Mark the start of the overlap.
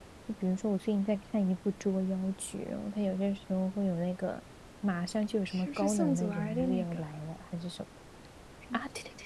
5 s

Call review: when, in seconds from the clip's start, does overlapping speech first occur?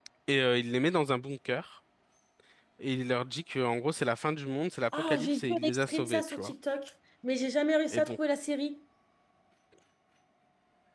5 s

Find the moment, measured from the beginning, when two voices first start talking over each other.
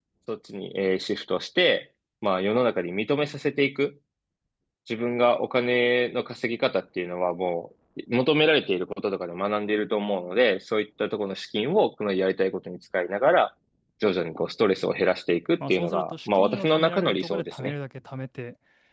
16 s

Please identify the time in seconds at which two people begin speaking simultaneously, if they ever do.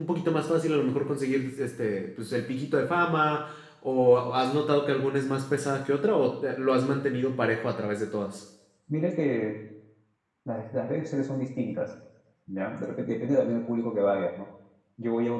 none

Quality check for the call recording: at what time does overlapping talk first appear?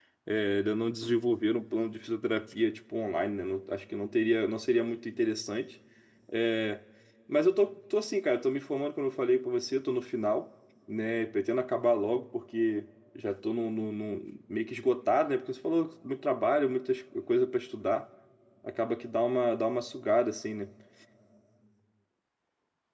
none

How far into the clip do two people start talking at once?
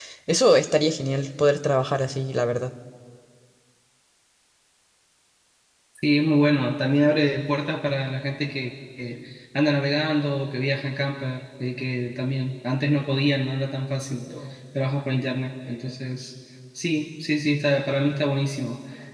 none

